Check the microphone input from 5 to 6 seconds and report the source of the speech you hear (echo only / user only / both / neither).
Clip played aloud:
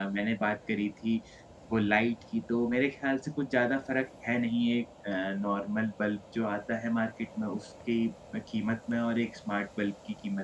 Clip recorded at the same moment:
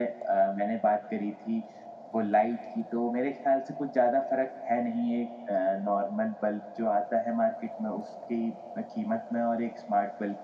echo only